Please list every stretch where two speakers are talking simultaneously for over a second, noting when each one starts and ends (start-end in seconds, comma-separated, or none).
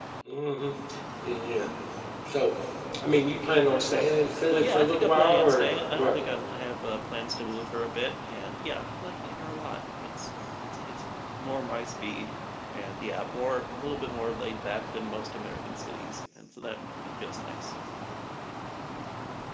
4.6-6.2